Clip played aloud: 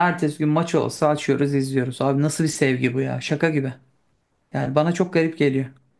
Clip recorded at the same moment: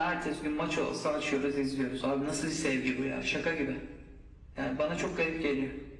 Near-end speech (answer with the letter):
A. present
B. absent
B